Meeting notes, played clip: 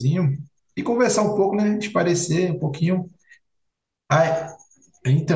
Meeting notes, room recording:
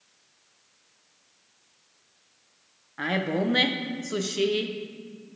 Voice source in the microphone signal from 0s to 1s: neither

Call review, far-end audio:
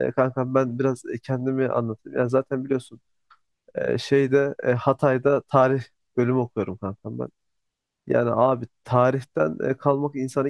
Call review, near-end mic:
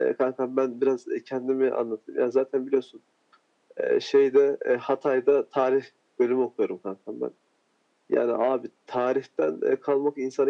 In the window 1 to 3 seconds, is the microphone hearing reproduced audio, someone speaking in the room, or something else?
echo only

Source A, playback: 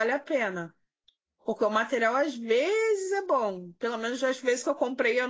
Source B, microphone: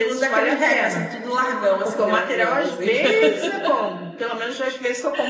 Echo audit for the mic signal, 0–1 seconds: both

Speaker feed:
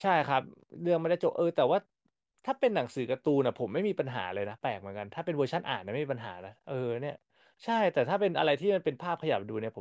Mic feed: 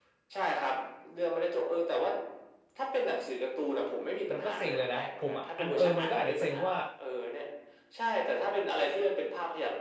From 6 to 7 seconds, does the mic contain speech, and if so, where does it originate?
both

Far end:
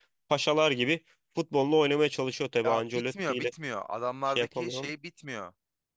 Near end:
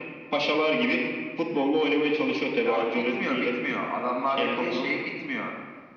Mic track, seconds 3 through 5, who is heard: echo only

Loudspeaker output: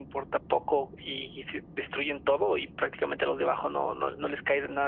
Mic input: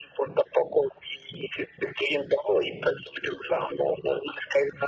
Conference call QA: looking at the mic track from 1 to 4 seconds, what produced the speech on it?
echo only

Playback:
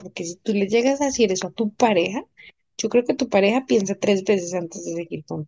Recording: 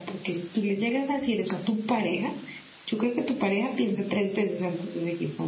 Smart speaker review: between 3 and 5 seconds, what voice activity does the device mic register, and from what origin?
echo only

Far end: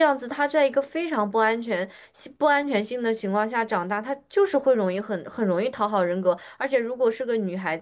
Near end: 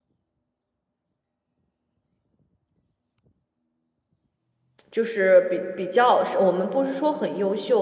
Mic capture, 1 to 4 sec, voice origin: neither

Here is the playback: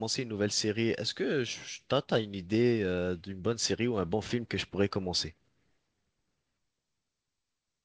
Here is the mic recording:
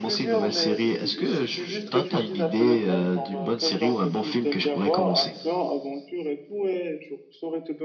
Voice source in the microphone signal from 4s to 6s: both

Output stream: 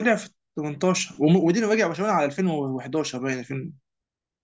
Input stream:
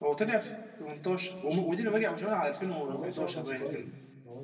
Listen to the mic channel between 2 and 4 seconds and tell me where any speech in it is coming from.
both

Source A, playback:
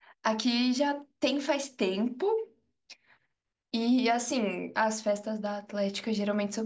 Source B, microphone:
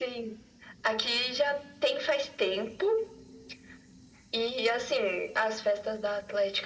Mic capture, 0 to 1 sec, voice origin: echo only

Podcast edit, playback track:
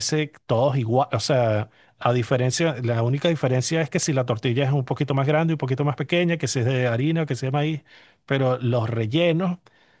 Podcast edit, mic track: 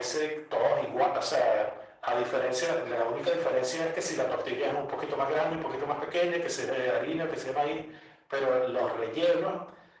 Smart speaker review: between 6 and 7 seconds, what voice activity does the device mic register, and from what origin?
echo only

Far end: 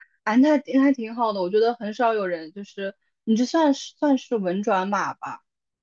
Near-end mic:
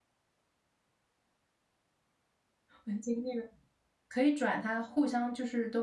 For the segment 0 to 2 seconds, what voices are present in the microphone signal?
neither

